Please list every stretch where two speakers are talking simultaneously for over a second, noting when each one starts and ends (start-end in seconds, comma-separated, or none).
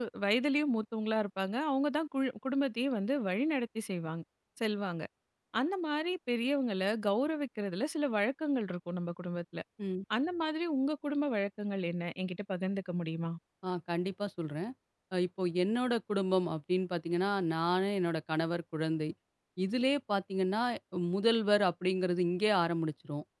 none